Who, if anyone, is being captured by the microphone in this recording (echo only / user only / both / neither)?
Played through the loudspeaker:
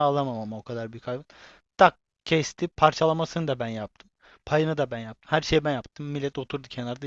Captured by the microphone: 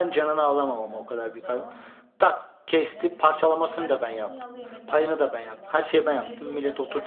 both